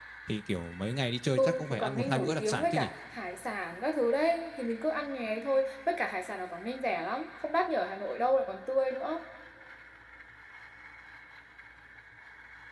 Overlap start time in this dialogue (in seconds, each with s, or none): 1.4 s